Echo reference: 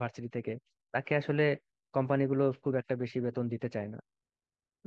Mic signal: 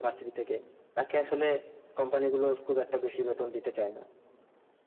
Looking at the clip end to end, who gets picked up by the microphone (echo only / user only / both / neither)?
echo only